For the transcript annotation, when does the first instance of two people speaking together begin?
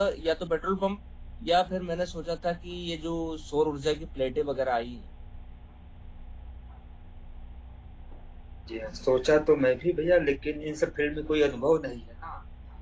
none

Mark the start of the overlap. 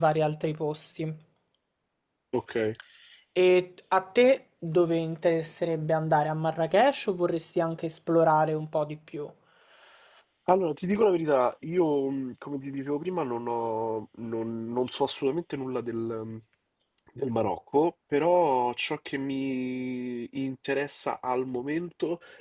none

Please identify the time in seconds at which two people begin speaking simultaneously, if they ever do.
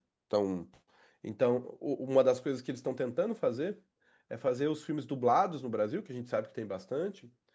none

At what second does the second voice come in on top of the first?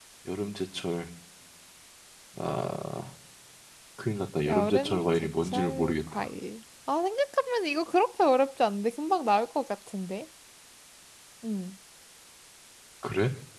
4.5 s

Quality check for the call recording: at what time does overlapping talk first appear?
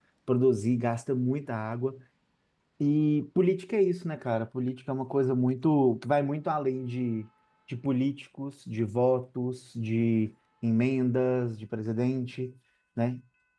none

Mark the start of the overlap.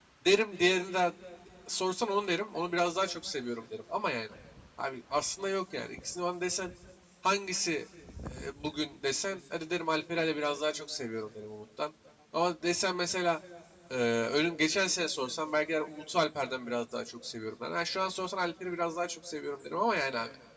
none

